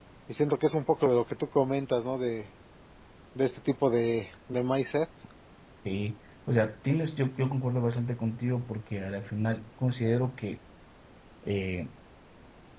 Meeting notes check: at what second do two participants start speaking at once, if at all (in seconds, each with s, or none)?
none